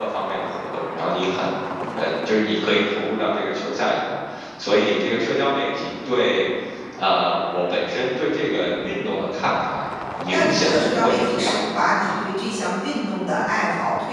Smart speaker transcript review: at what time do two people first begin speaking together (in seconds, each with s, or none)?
10.3 s